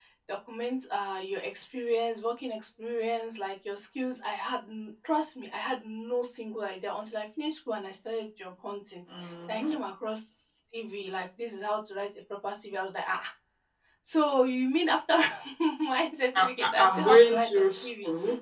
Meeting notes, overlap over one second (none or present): present